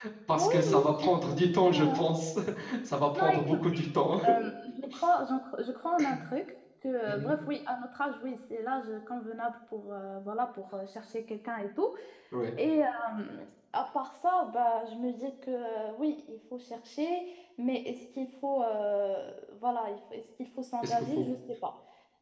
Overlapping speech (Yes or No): Yes